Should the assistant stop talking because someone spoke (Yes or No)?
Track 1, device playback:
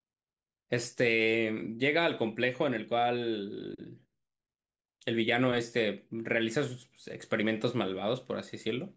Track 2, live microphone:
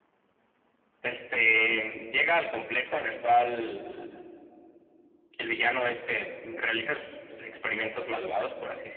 No